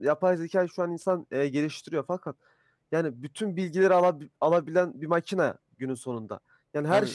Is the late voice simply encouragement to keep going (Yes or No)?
Yes